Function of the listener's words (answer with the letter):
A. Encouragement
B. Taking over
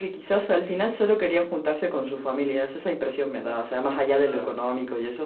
A